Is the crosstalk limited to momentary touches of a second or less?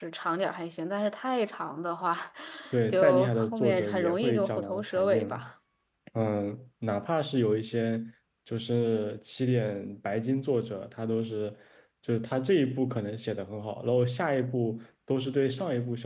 No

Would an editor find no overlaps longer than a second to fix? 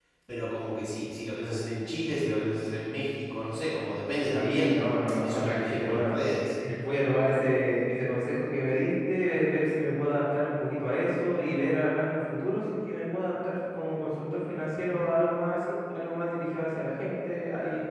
No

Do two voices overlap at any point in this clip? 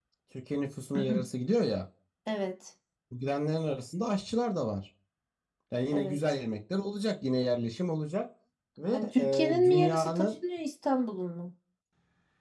Yes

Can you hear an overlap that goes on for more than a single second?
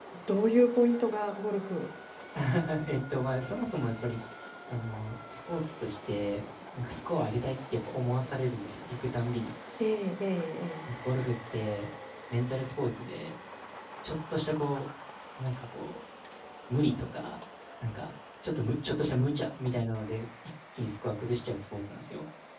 No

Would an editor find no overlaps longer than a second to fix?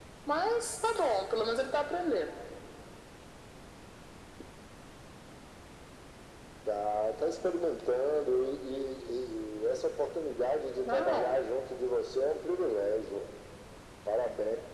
Yes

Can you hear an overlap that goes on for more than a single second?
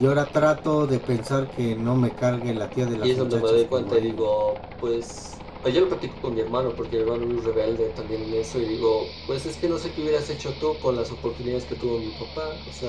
Yes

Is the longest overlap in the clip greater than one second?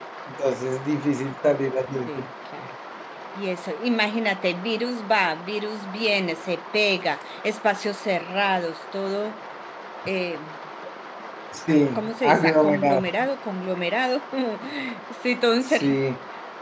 Yes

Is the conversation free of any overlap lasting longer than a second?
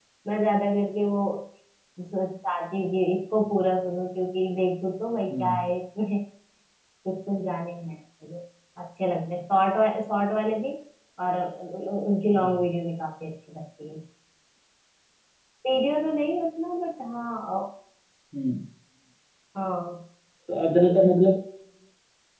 Yes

